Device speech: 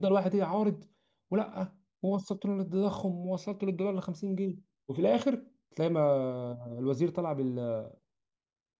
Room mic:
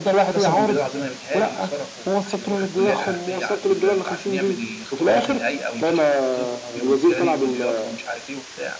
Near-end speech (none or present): present